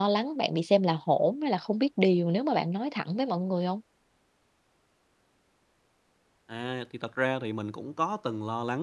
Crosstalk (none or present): none